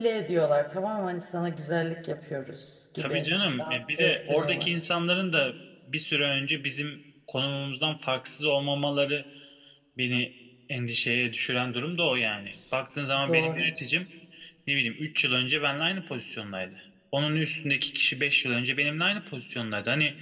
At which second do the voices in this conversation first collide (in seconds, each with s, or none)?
3.0 s